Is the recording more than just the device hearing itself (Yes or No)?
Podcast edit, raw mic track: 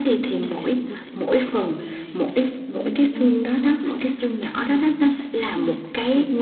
Yes